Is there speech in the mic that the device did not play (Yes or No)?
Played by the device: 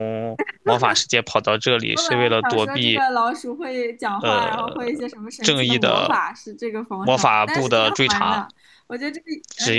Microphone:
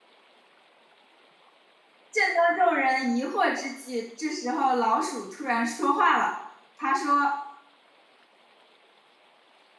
Yes